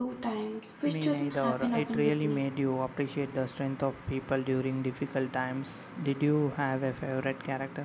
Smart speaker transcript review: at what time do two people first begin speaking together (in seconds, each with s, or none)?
0.9 s